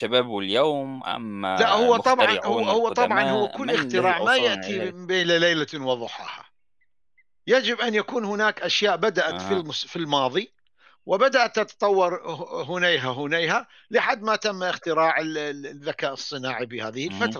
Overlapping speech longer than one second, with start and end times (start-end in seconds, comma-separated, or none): 1.6-4.9